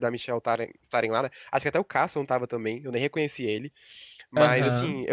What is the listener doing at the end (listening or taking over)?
listening